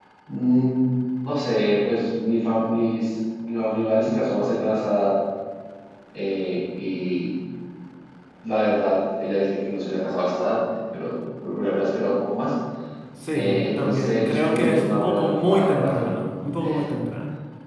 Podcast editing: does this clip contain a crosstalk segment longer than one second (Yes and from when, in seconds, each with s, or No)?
Yes, from 13.3 s